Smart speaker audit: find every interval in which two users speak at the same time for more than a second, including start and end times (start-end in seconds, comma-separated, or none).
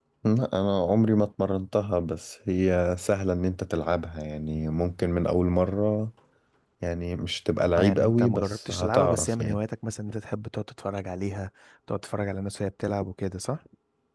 7.8-9.6